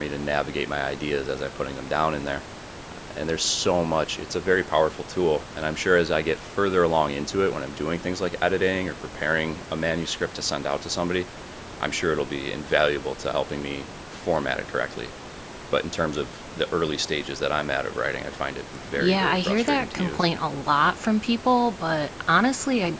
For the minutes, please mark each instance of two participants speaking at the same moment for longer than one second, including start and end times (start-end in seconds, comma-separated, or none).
19.0-20.3